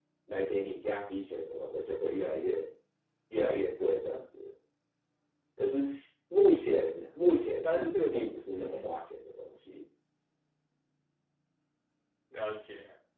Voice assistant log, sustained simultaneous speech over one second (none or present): present